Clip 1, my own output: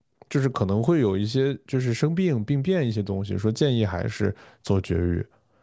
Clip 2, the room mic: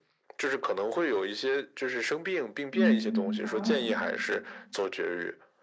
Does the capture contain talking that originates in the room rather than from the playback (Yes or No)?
Yes